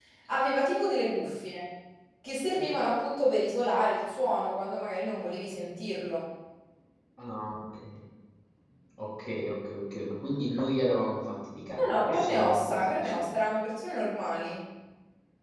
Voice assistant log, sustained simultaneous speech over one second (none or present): present